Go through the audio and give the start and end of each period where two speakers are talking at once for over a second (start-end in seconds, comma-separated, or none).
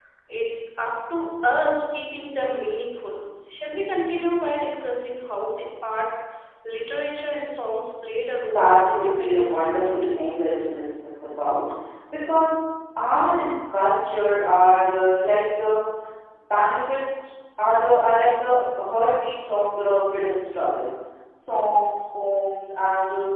8.4-9.9